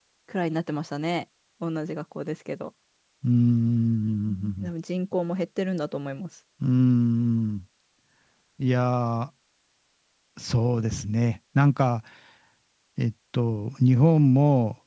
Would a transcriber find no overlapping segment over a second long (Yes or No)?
Yes